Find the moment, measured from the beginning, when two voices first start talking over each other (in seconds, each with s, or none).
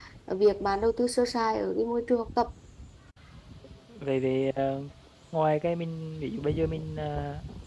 none